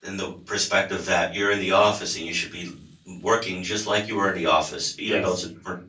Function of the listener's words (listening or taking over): listening